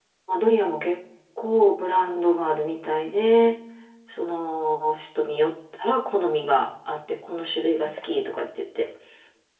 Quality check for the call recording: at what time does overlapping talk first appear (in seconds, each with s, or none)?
none